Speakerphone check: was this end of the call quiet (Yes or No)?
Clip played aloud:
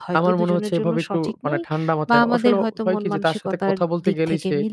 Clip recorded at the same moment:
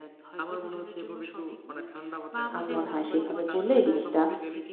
No